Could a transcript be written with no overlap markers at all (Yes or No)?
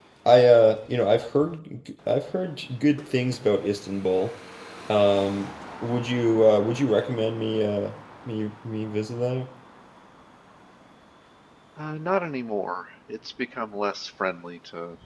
Yes